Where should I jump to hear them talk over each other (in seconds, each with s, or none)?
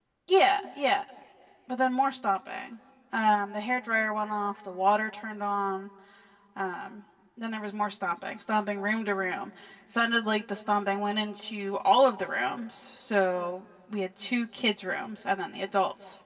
none